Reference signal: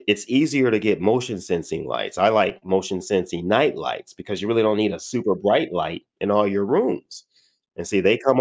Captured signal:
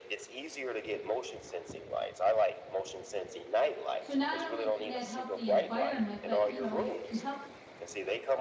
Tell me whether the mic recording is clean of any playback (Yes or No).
No